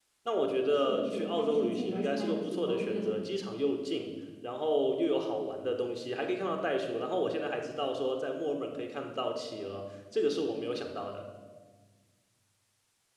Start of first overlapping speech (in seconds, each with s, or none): 0.8 s